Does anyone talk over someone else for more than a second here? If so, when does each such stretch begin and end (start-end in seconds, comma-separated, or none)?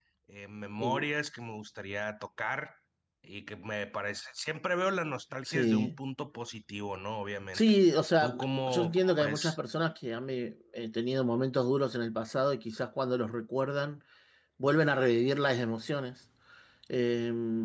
8.2-9.6